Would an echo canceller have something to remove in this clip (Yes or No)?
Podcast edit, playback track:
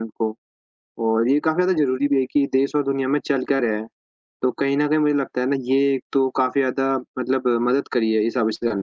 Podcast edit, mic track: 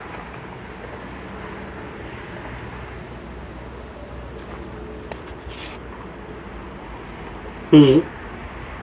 No